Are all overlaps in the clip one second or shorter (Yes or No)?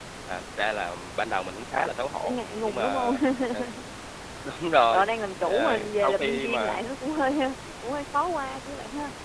No